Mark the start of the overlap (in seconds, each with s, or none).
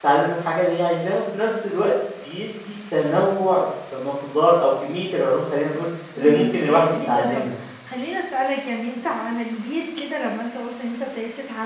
6.2 s